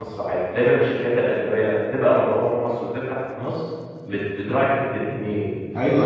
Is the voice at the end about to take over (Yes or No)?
Yes